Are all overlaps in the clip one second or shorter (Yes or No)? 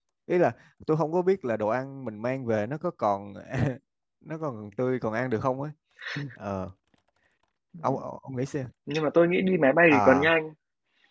Yes